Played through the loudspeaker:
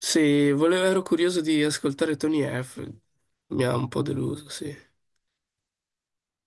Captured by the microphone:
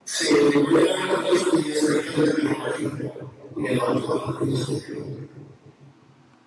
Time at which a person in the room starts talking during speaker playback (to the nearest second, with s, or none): none